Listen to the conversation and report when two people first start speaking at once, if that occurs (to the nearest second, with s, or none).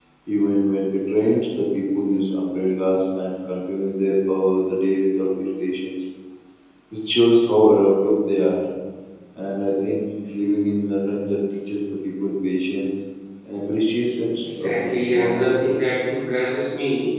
14 s